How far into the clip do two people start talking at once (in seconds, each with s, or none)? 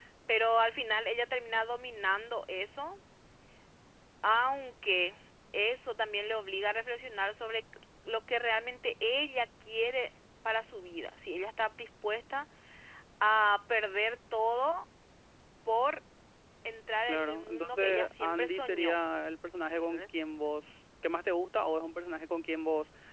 17.0 s